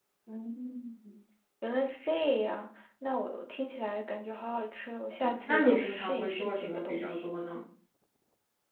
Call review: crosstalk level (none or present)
present